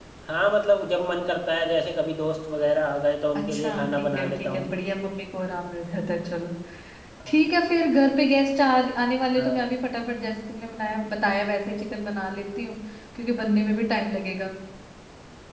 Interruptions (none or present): present